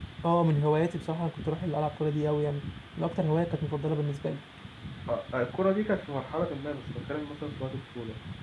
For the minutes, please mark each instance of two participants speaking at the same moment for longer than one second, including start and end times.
none

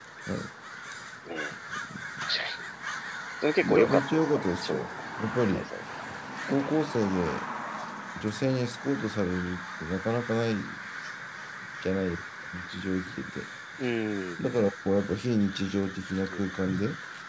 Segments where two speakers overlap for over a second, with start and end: 3.6-4.8

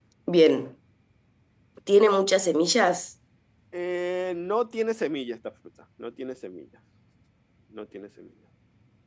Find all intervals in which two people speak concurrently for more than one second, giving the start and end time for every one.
none

